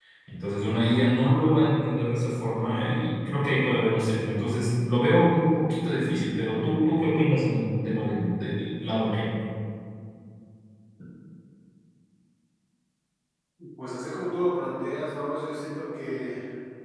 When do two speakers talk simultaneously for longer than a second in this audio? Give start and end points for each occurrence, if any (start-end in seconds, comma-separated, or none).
none